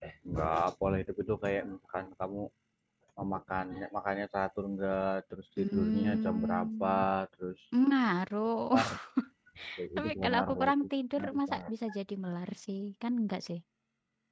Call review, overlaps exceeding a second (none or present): present